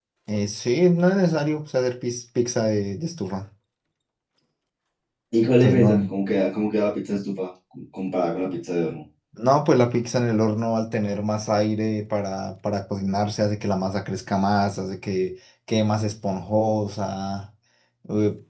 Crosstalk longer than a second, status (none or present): none